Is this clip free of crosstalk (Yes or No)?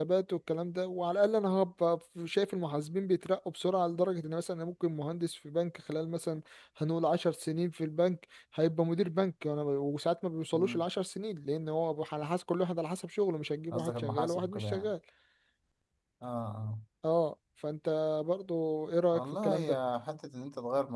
No